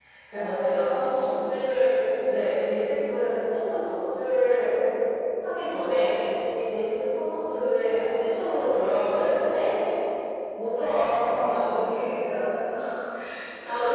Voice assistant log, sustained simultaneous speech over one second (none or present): present